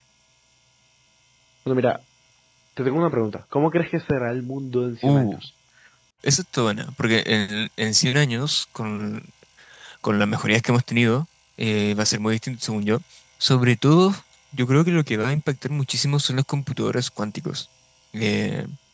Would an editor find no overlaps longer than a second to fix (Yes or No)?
Yes